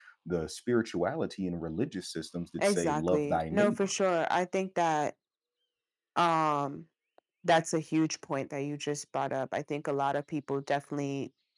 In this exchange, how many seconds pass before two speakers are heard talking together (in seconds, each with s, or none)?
2.6 s